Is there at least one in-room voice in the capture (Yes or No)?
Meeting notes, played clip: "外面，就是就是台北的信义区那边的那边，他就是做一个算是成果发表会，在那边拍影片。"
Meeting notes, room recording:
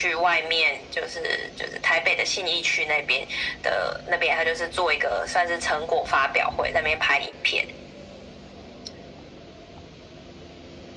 No